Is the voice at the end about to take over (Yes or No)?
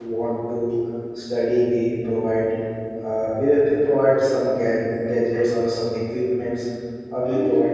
No